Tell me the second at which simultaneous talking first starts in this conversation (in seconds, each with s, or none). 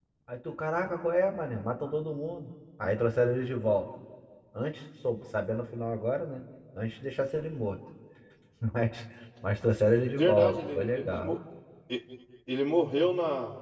10.1 s